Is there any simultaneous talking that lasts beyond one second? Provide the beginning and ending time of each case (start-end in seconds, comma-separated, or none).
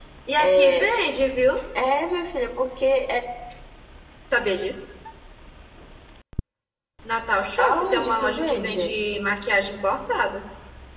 7.6-8.9